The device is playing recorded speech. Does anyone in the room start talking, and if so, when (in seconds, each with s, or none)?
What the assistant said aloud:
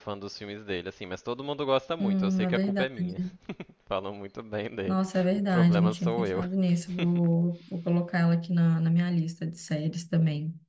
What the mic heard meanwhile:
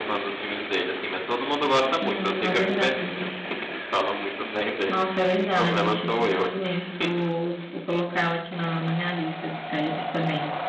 none